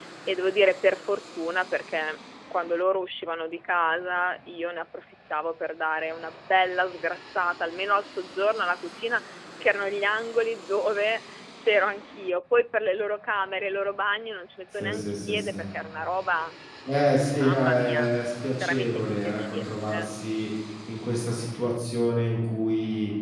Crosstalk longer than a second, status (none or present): present